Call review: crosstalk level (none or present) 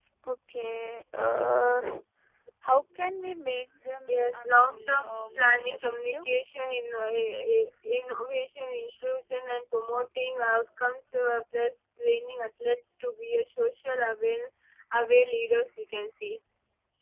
present